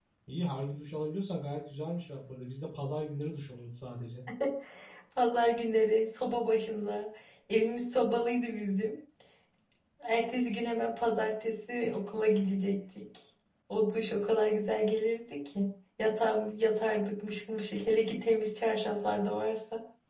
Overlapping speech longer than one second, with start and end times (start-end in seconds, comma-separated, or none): none